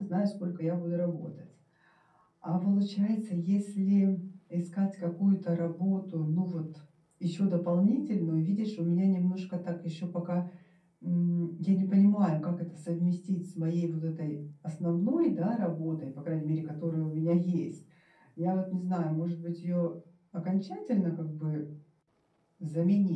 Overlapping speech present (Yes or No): No